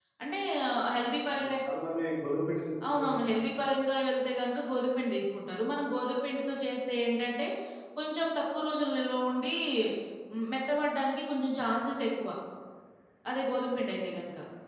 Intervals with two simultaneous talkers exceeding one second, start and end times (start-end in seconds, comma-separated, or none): none